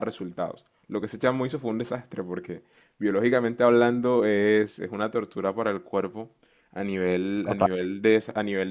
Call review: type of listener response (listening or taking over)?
listening